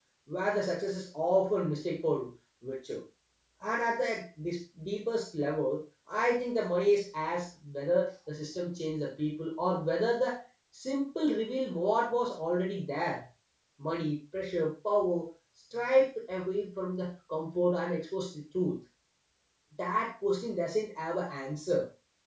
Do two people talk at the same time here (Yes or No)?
No